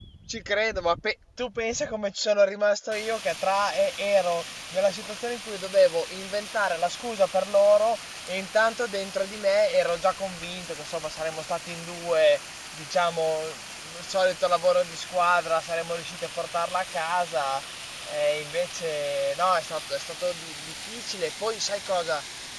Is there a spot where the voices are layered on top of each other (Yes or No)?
No